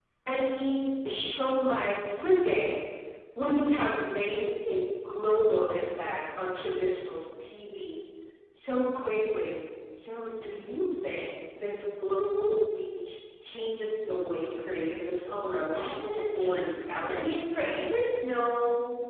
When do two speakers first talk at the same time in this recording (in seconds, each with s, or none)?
15.3 s